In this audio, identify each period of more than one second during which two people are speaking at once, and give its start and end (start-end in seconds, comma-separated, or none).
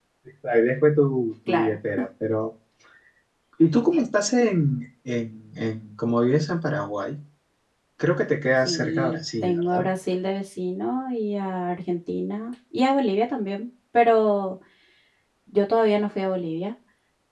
8.6-9.8